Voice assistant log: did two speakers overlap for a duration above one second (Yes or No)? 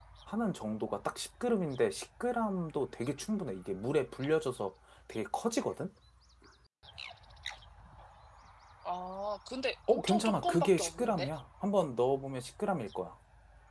Yes